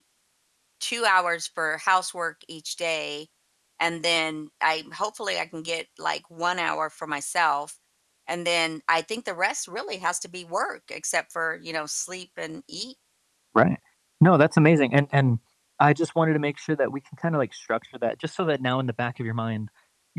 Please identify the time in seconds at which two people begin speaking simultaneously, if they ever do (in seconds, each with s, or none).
none